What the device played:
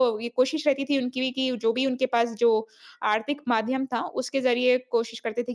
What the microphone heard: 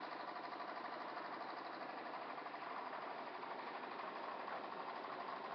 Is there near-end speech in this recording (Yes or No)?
No